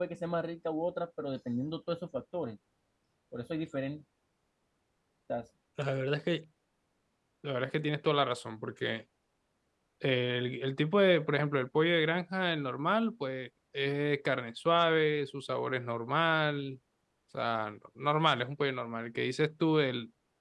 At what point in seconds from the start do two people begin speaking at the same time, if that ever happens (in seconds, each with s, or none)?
none